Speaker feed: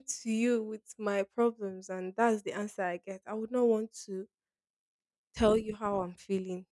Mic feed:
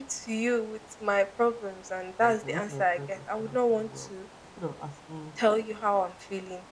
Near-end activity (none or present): present